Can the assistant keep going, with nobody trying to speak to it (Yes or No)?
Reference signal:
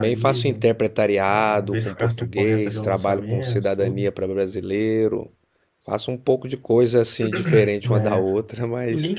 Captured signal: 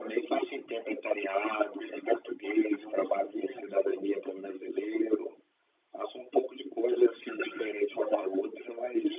Yes